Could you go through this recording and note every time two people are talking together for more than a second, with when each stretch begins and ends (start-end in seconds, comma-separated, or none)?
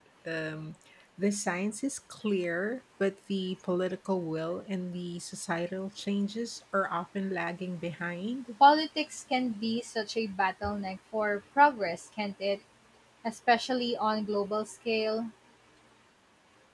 none